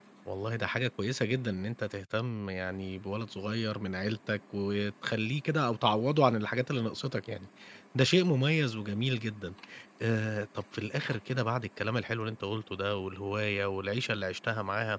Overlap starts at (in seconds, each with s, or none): none